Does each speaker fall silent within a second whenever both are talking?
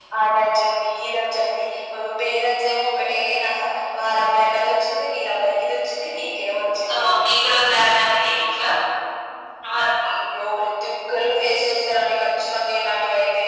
Yes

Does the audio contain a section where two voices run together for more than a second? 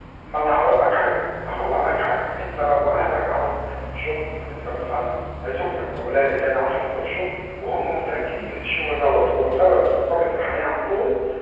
No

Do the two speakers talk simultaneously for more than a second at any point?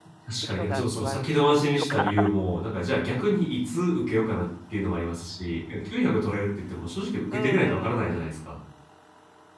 Yes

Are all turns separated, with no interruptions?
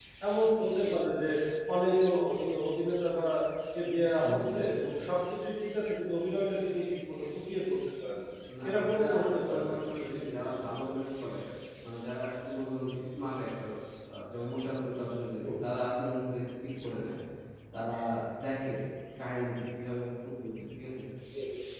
No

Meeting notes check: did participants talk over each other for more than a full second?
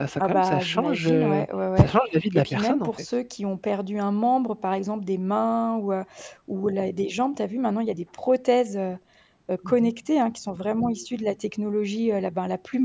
Yes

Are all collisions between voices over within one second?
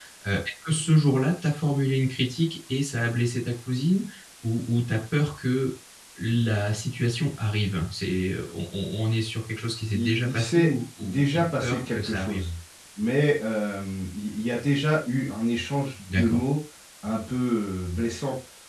No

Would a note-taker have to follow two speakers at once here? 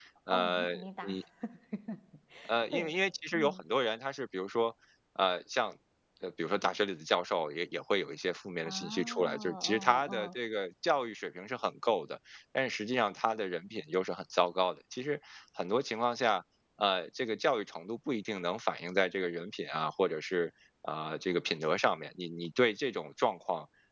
Yes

